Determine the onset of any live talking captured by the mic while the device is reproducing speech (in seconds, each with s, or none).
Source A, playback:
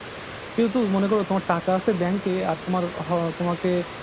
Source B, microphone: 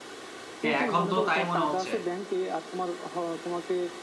0.6 s